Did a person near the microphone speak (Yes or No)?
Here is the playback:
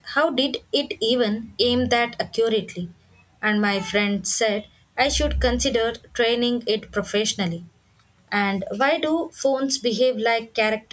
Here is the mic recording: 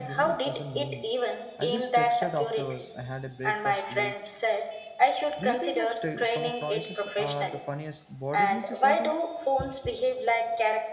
Yes